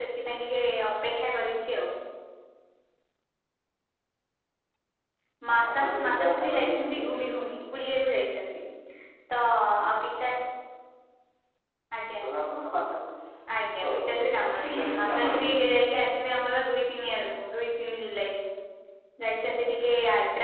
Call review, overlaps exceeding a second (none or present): present